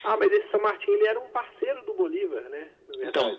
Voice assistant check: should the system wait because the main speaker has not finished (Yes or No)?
No